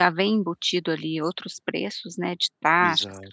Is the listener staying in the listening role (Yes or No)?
No